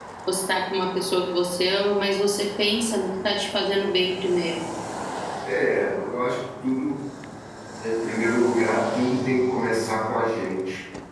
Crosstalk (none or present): none